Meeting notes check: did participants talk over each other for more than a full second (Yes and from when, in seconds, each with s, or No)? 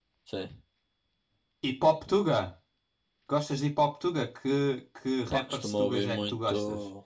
Yes, from 5.3 s